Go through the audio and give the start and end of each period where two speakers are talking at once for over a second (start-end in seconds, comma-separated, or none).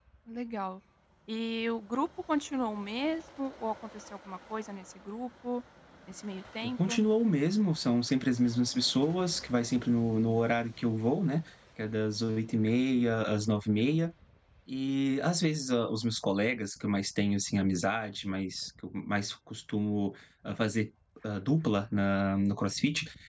none